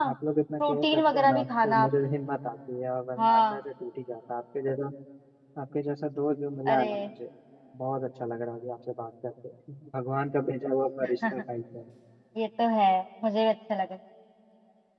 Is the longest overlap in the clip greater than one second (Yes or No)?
Yes